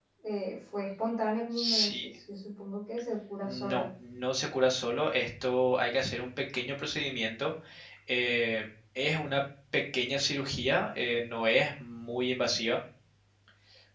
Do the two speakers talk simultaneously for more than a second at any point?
No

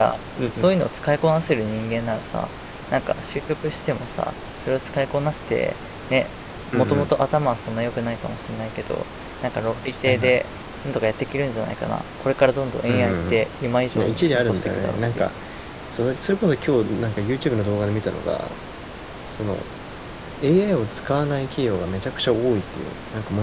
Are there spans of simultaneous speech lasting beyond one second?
Yes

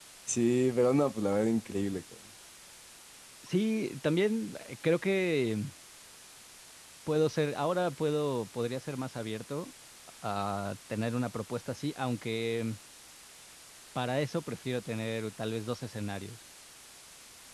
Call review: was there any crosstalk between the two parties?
No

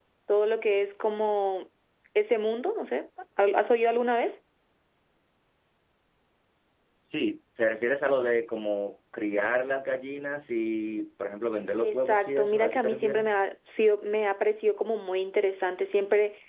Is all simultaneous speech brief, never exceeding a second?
No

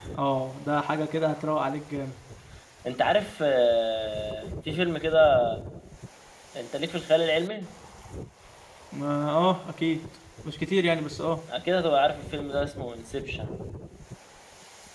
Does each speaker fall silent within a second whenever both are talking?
Yes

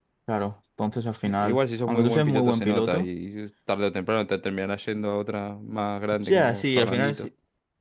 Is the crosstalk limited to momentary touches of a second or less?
No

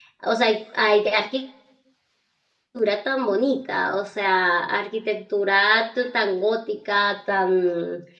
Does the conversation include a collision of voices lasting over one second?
No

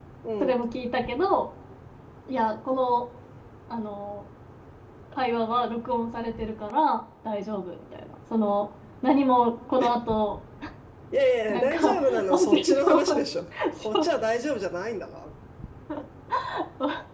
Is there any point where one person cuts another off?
Yes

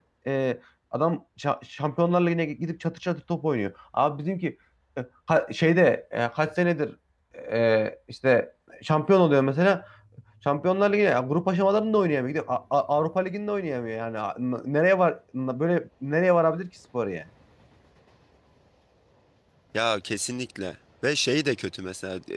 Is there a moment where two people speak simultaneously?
No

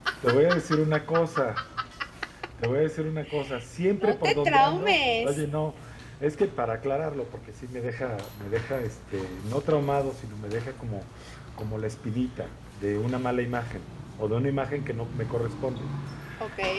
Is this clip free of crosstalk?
No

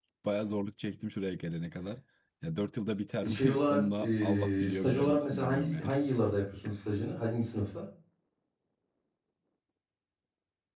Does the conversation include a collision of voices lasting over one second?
Yes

